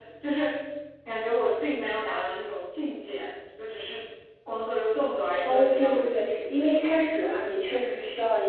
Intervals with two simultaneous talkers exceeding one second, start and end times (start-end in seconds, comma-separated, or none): 5.4-6.8